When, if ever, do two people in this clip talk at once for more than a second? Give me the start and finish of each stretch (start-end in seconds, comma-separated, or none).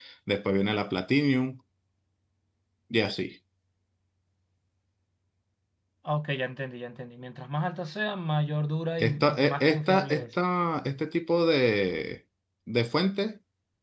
9.0-10.3